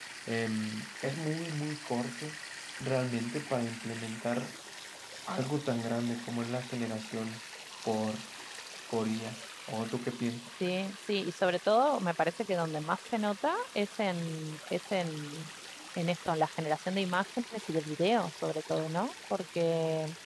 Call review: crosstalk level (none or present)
none